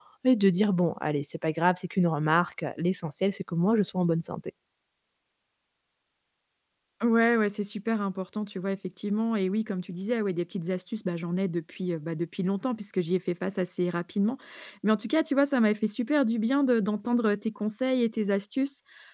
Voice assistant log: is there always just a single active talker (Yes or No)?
Yes